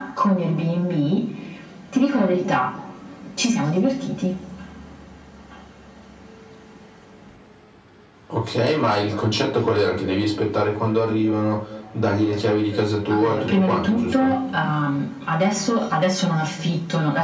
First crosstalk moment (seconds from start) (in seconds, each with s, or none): 13.1 s